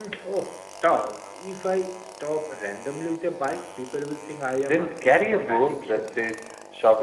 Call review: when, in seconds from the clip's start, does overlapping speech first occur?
4.6 s

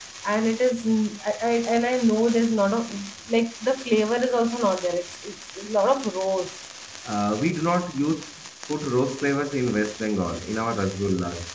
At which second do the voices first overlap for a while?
none

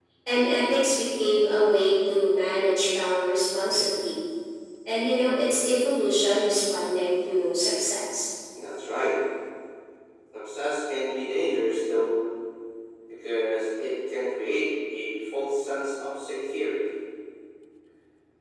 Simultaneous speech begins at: none

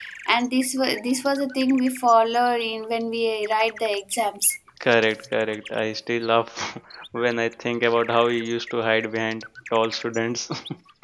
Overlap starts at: none

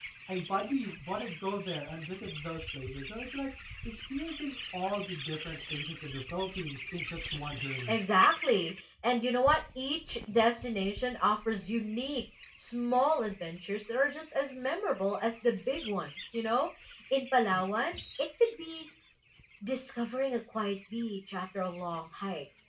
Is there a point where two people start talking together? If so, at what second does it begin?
none

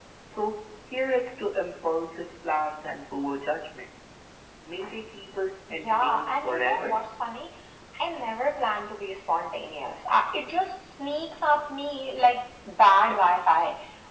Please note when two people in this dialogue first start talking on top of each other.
5.7 s

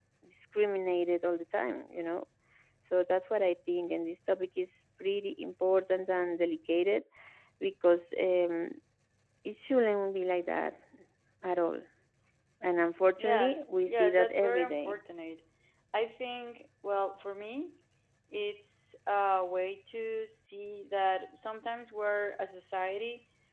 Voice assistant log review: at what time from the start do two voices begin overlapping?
13.2 s

